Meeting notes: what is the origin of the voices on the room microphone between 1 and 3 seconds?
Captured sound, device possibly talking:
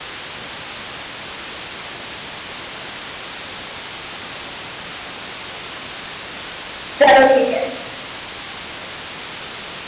neither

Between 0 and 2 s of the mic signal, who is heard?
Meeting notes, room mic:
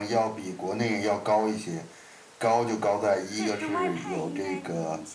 echo only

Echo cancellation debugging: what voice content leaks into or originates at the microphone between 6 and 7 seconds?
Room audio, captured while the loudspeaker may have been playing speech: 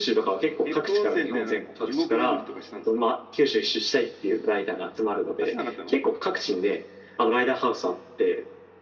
echo only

